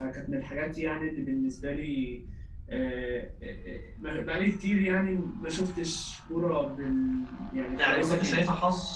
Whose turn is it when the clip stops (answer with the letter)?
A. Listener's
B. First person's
A